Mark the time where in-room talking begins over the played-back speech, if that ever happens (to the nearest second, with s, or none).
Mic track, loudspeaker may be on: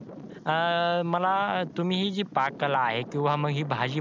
0 s